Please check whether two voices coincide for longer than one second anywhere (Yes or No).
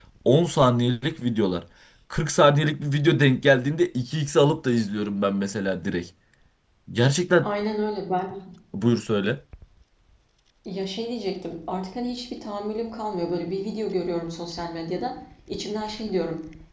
No